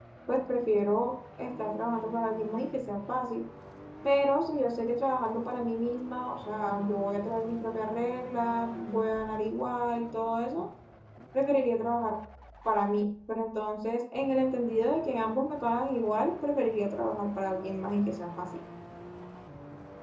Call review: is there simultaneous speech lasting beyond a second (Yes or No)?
No